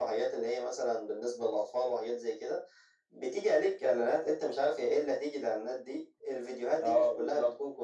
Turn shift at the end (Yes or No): No